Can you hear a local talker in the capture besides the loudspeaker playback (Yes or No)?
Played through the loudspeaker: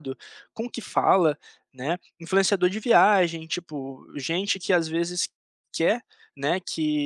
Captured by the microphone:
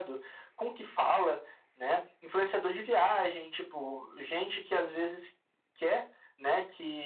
No